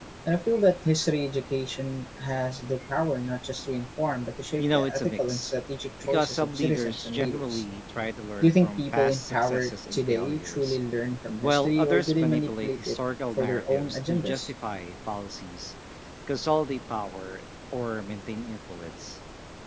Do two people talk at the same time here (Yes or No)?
Yes